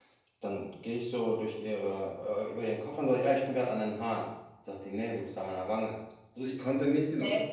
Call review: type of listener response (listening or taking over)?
listening